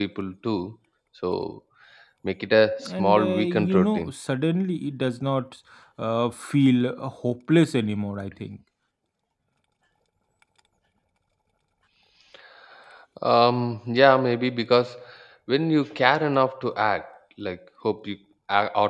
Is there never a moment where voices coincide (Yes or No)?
No